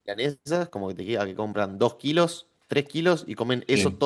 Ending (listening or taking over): listening